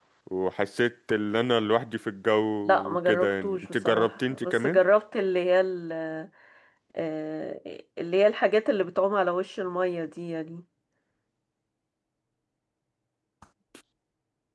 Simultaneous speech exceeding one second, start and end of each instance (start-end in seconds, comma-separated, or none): 2.9-4.8